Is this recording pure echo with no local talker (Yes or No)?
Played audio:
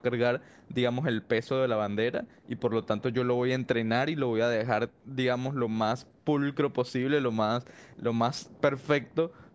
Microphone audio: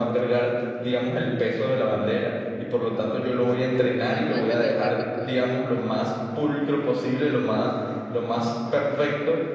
No